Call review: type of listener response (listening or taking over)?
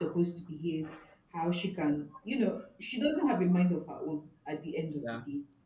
listening